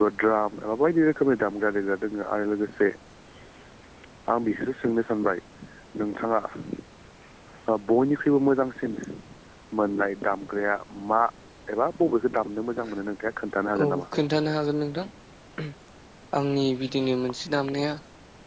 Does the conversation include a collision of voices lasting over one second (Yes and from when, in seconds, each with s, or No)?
No